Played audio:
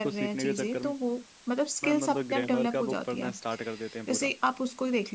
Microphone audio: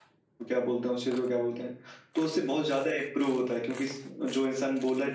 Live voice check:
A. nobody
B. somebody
B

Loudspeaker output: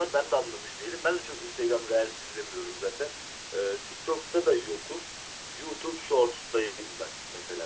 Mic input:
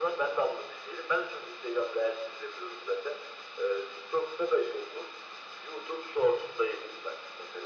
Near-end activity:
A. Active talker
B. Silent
B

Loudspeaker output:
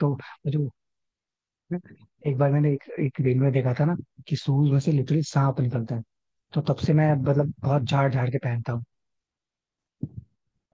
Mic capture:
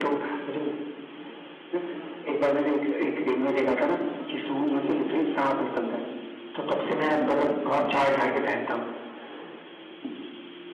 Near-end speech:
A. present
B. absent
B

